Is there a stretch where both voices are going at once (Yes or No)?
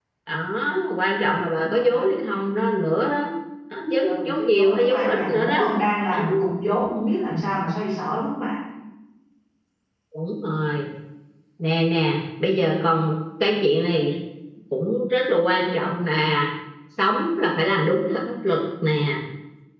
Yes